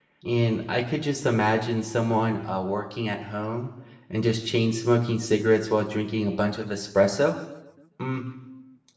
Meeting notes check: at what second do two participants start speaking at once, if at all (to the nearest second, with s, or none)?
none